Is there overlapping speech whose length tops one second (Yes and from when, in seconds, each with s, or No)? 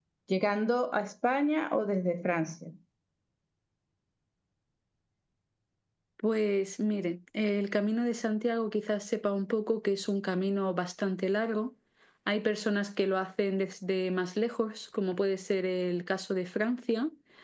No